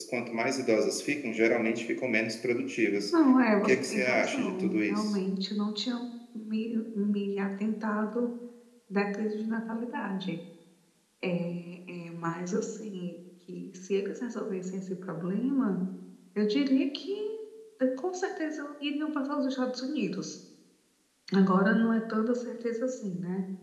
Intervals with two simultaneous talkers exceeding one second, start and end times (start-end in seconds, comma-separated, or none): 3.6-5.2